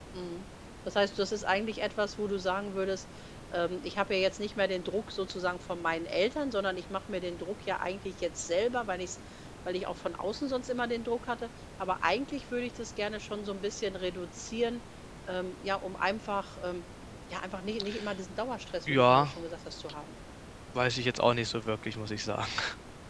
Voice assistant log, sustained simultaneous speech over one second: none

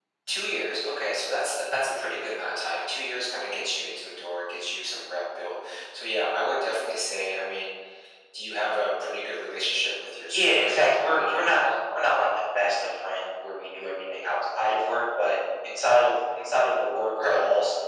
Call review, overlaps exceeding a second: present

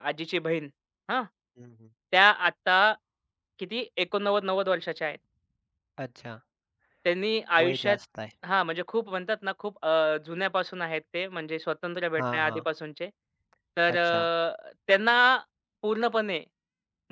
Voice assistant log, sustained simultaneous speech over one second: none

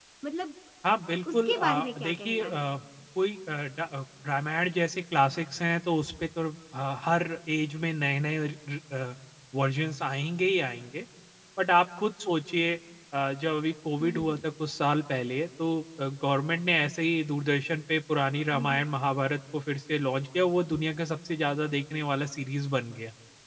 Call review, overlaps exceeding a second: present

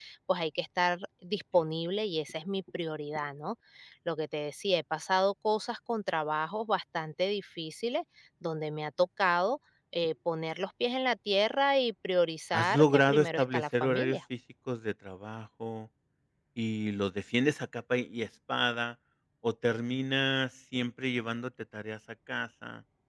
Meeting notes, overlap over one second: present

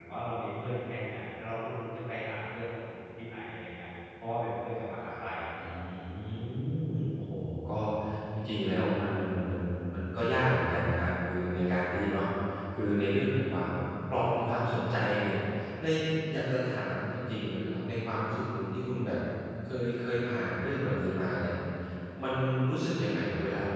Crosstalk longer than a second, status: none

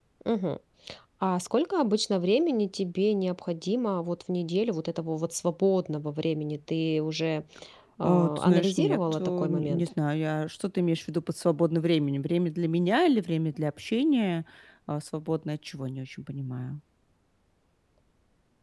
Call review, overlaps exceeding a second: present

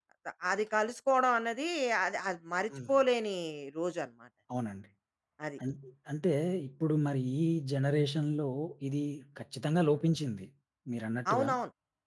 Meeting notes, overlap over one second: none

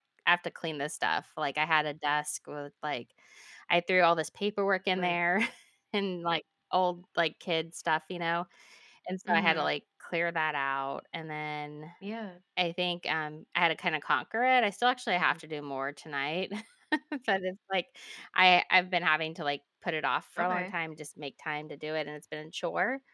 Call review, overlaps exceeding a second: none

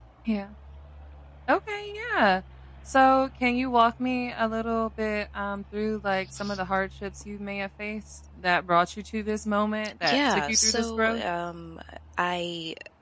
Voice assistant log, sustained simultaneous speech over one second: present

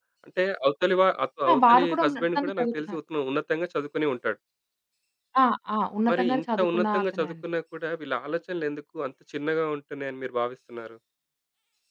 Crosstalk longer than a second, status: present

